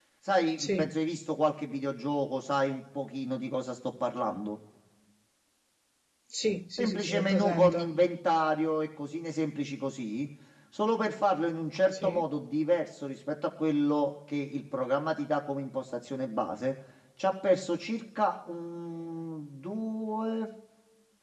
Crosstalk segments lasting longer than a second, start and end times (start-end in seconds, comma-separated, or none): 6.8-8.0